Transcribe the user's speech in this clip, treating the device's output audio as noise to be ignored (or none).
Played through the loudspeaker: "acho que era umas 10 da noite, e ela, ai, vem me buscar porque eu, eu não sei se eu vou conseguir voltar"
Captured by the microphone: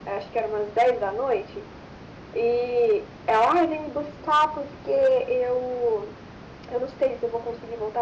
none